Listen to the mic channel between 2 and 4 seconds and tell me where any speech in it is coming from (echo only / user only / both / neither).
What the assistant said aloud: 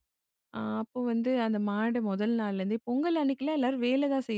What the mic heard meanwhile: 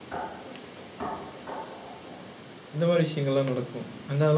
user only